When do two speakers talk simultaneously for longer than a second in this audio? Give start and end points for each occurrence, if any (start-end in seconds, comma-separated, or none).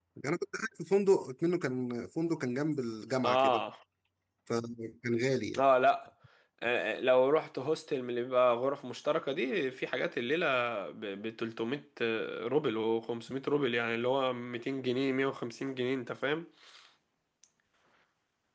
none